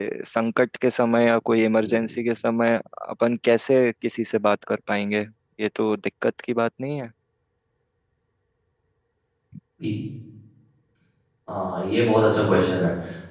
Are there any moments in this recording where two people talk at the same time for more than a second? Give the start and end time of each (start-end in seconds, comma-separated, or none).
none